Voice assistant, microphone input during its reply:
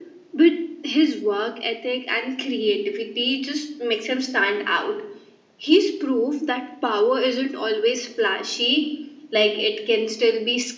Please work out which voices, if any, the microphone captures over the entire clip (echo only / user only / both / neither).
echo only